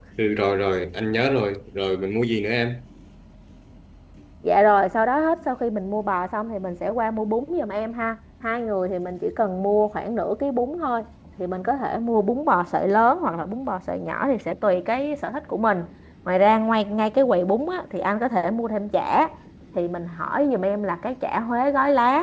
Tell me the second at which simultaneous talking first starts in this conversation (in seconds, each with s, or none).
none